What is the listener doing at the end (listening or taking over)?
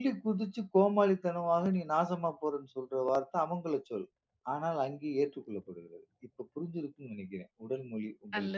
taking over